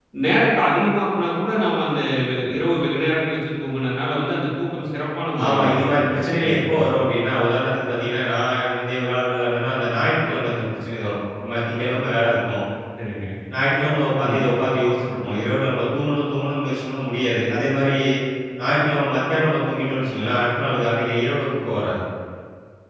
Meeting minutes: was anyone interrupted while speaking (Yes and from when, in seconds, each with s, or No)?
Yes, from 5.4 s